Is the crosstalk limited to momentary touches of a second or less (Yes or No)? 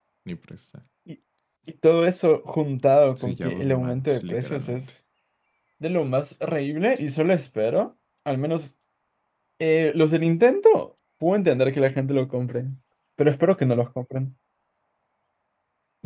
No